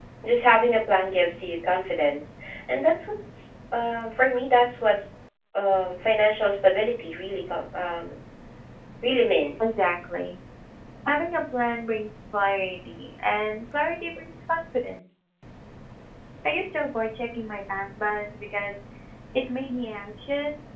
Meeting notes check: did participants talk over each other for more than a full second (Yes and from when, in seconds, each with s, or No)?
No